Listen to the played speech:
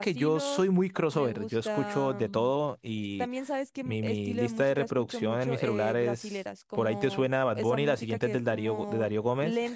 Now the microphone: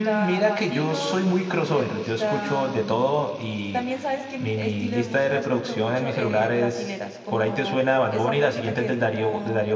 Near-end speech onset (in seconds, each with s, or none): none